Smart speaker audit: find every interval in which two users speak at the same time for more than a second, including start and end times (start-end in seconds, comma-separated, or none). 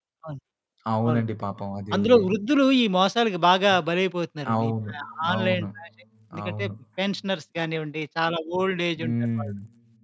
none